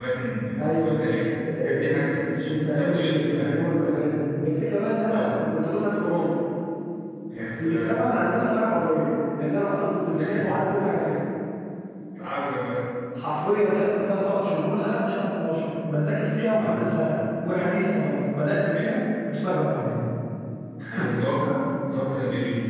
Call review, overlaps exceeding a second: present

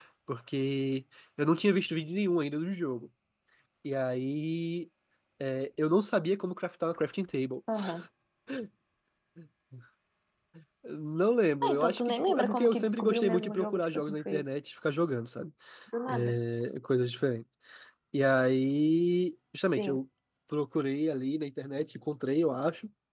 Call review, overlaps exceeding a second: present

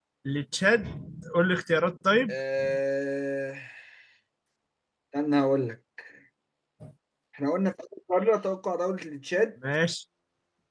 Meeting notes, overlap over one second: none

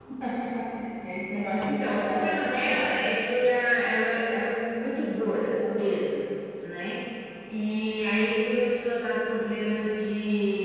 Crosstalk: present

